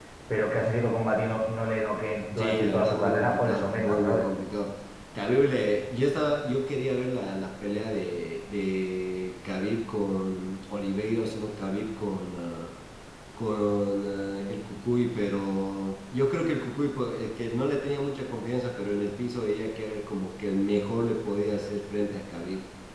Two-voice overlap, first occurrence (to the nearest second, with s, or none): 2 s